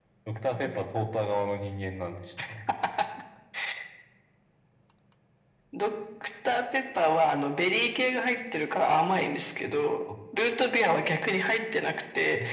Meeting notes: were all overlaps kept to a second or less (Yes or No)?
Yes